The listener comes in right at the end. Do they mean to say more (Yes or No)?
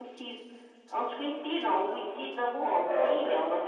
No